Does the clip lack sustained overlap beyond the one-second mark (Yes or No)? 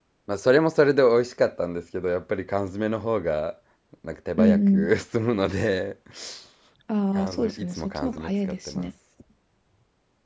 No